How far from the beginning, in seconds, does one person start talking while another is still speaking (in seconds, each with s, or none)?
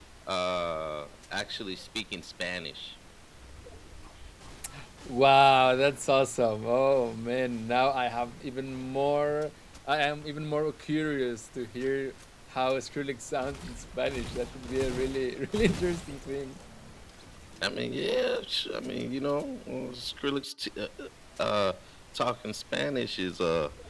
none